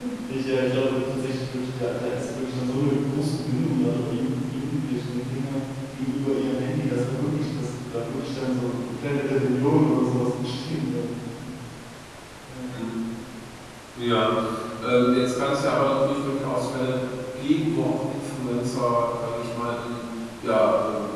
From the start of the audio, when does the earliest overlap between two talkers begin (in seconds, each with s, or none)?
none